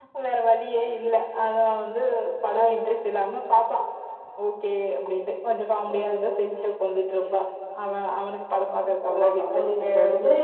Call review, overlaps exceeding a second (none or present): present